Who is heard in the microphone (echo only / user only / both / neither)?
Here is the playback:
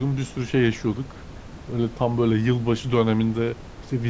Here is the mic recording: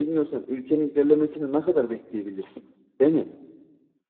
user only